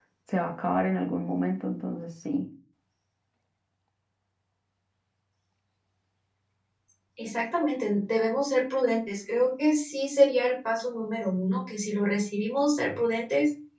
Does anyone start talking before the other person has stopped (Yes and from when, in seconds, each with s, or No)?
No